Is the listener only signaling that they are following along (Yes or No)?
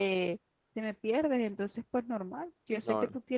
Yes